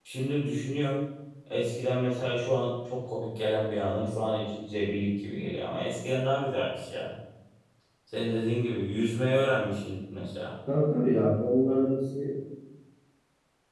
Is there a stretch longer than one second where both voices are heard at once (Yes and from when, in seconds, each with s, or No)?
No